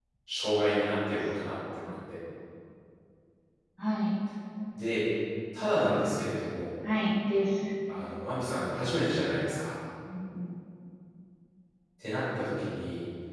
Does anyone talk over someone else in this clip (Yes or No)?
No